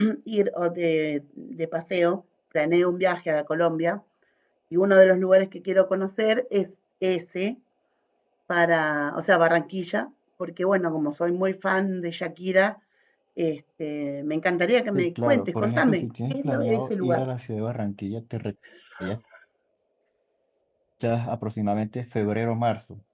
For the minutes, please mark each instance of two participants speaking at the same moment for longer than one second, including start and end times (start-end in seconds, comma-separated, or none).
14.9-17.2